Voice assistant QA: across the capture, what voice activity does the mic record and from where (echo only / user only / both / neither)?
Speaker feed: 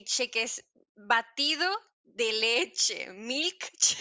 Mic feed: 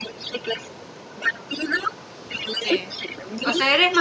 both